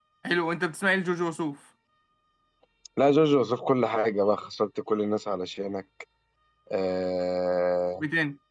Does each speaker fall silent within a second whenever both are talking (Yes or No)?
Yes